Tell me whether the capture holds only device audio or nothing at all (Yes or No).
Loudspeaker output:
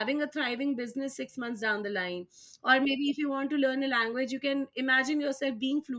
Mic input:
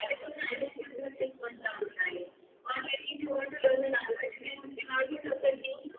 Yes